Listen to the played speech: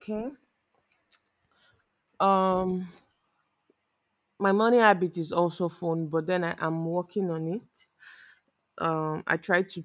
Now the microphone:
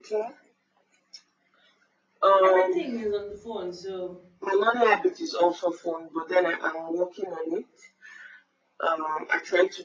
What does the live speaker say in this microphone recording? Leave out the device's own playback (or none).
Everything is on the phone. So